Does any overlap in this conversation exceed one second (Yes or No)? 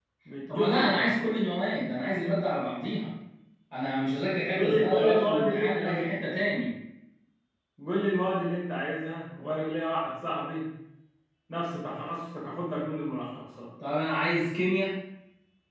Yes